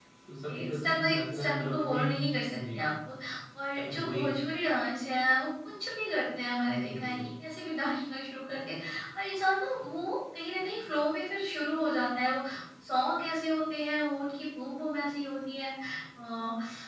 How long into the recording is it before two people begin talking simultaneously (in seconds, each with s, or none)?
0.7 s